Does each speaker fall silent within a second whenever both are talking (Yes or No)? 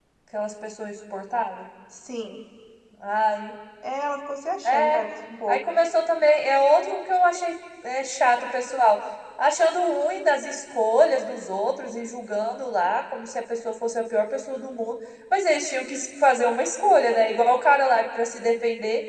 Yes